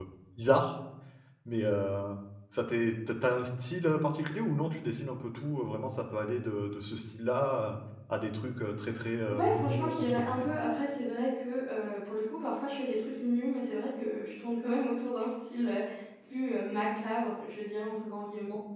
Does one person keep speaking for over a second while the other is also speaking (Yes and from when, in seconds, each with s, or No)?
Yes, from 9.3 s